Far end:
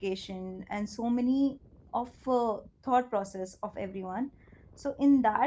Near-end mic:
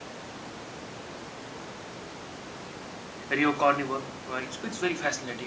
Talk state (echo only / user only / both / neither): user only